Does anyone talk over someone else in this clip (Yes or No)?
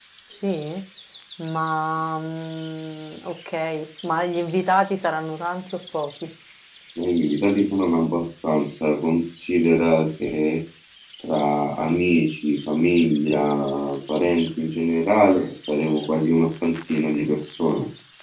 No